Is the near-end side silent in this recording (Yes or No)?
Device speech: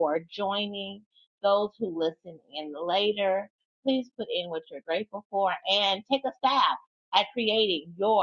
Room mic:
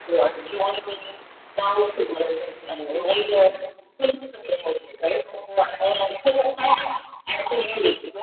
No